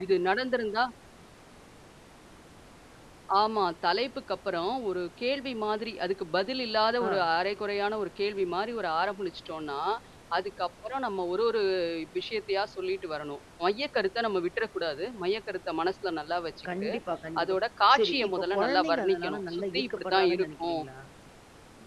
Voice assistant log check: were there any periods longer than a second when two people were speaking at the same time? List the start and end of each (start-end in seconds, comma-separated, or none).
17.9-20.8